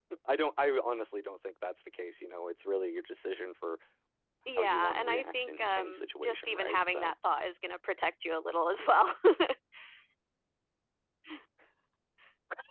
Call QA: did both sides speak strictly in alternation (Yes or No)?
No